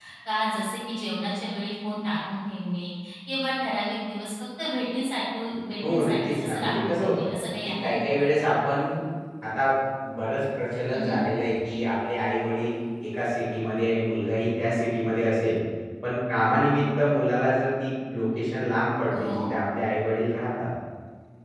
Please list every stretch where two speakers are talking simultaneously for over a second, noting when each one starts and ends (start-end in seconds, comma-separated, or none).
5.9-7.3